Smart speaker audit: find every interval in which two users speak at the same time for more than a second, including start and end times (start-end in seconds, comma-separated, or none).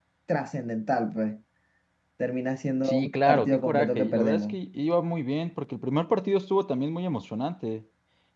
2.8-4.6